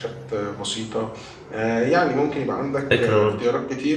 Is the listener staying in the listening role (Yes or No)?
Yes